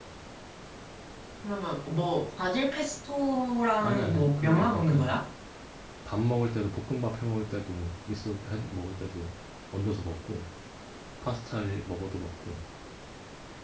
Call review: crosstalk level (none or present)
present